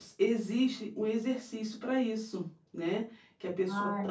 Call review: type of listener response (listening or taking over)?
listening